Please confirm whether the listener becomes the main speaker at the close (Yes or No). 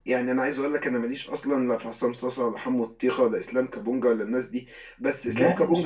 No